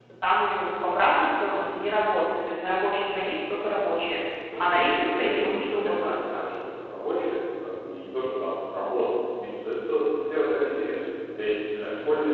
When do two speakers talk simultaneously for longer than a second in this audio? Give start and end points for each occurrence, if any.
4.6-6.5

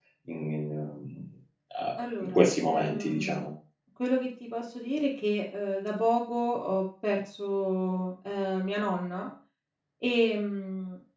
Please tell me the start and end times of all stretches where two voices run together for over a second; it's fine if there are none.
2.0-3.5

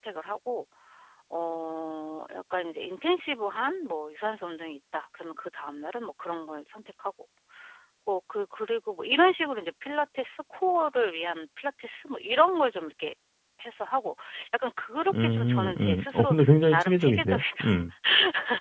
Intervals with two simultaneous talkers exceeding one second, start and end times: 15.2-17.6

